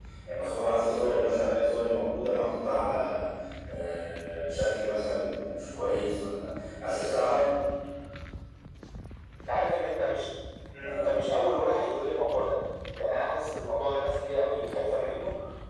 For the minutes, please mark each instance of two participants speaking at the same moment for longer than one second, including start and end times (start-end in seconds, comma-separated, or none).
none